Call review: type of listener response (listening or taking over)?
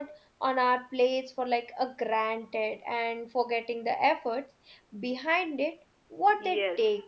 taking over